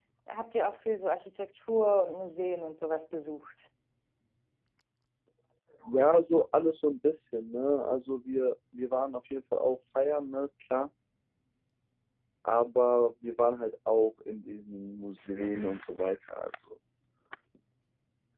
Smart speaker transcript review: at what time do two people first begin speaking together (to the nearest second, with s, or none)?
none